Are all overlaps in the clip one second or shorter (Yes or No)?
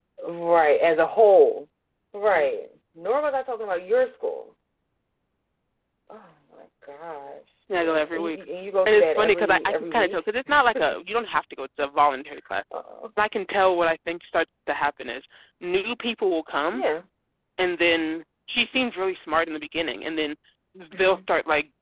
No